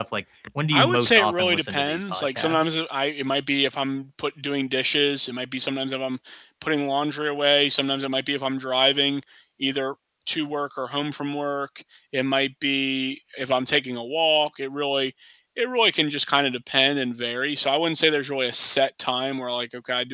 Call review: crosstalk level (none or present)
present